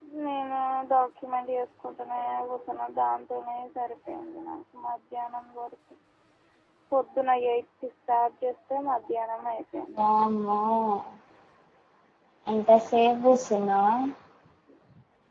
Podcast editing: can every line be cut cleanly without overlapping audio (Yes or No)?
Yes